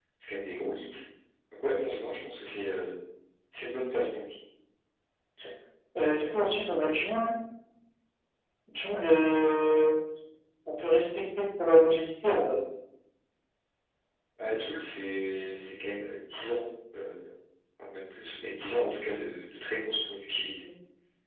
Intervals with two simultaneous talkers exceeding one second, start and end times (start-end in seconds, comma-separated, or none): none